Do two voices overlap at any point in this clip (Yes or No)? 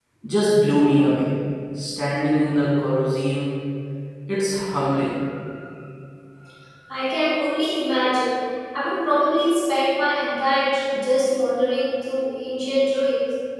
No